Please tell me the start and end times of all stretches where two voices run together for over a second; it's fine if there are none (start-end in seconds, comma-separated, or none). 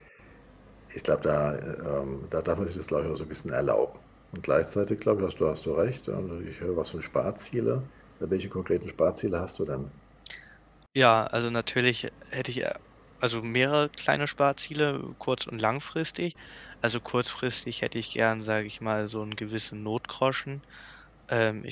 none